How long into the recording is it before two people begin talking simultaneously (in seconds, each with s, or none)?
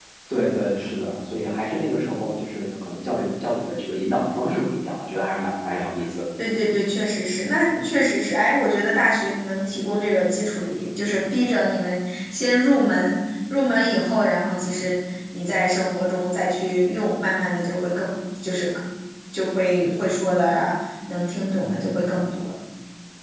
none